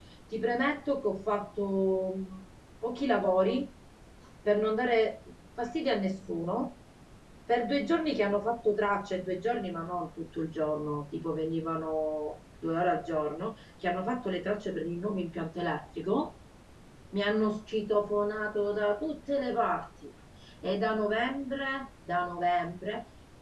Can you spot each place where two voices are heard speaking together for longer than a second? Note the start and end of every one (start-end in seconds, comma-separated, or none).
none